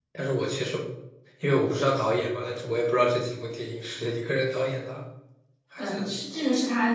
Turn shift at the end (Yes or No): Yes